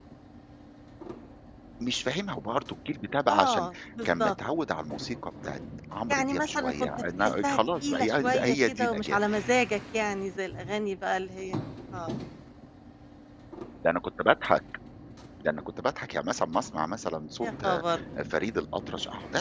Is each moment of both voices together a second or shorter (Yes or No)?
No